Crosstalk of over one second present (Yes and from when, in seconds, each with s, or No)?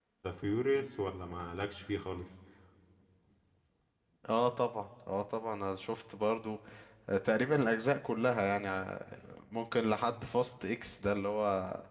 No